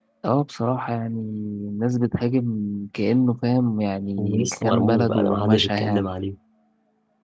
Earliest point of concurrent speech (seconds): 4.1 s

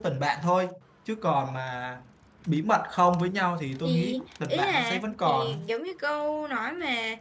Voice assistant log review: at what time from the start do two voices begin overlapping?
3.8 s

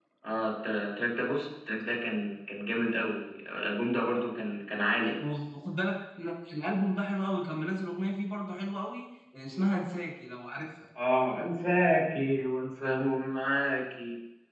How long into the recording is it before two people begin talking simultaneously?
none

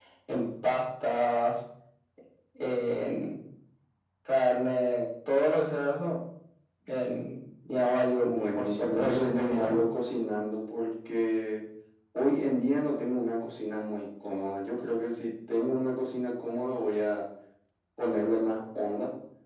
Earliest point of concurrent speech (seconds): 8.2 s

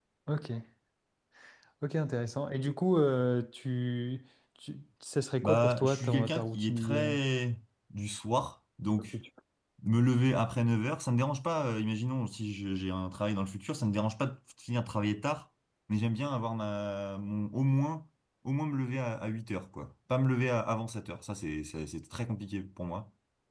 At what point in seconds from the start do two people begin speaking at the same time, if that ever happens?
5.4 s

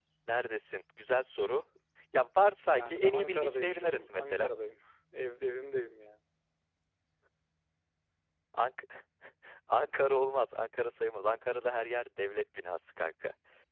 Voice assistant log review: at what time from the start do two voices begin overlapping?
2.6 s

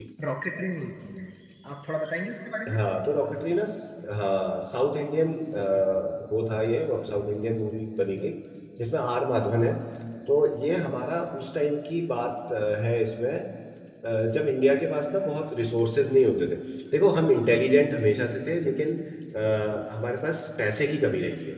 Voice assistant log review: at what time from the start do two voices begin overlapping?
none

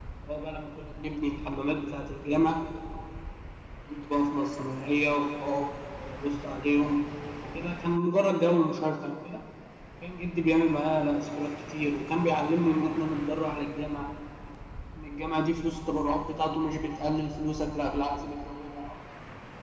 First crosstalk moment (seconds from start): none

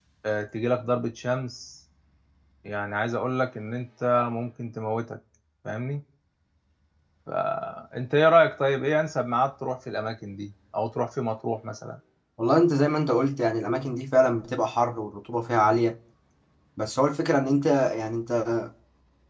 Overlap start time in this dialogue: none

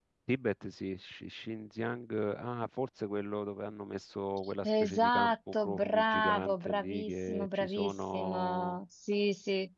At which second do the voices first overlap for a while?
4.6 s

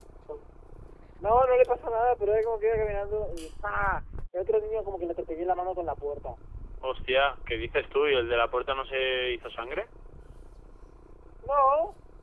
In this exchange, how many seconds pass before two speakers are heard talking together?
none

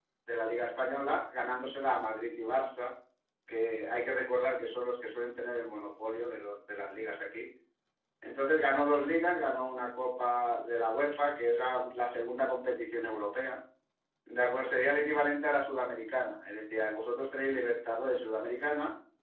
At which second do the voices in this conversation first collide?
none

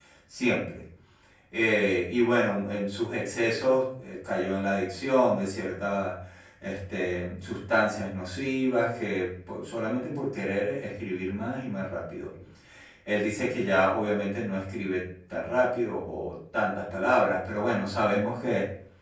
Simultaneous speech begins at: none

